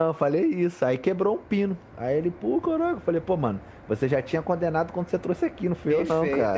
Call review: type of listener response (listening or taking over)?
taking over